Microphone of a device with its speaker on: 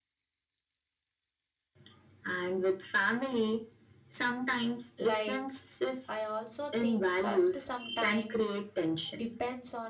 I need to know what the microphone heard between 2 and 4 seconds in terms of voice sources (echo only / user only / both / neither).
echo only